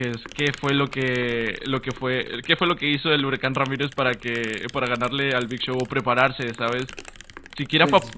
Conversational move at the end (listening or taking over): listening